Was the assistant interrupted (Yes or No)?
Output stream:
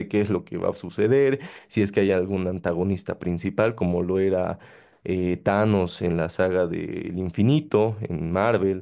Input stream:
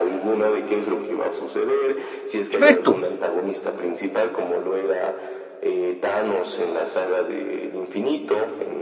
Yes